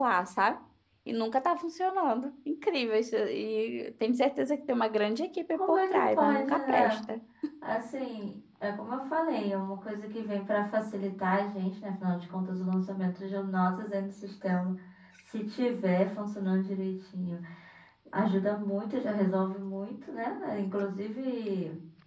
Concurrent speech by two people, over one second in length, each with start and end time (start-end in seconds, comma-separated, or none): 5.5-7.0